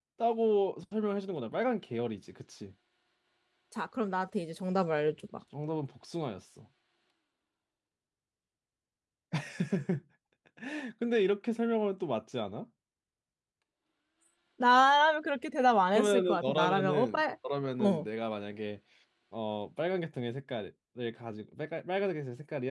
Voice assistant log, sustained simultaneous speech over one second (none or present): present